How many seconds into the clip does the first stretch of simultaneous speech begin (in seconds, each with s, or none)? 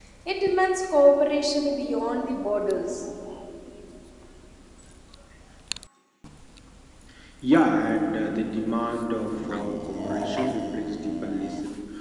none